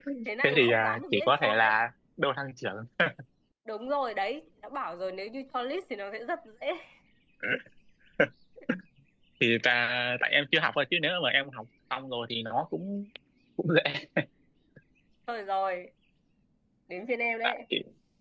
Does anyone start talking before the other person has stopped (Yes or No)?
Yes